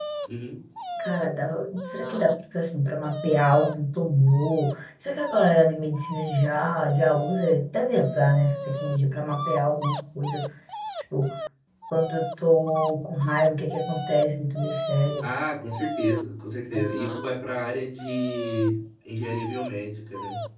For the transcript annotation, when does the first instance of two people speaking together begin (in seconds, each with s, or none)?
none